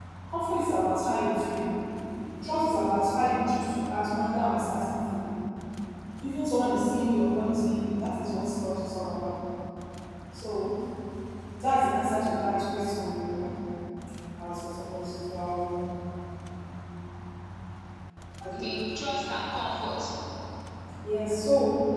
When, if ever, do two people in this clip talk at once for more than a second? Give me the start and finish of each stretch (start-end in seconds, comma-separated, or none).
none